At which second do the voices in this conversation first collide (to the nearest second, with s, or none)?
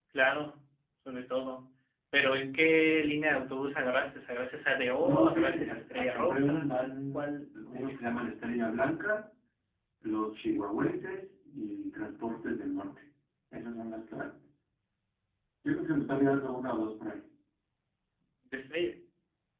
5 s